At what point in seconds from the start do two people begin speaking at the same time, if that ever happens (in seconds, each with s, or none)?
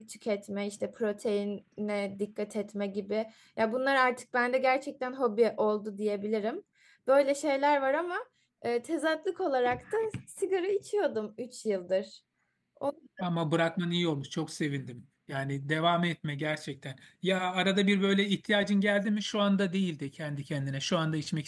none